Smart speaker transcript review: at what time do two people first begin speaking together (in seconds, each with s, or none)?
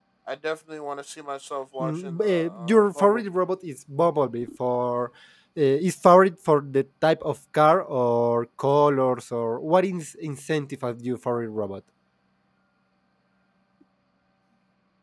1.8 s